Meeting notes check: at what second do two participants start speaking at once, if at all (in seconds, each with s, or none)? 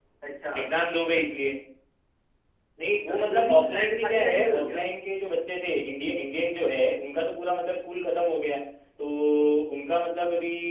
3.1 s